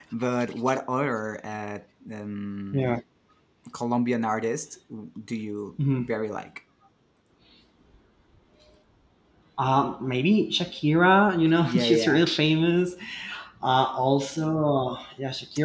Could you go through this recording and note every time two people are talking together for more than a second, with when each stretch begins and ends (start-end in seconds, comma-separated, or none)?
none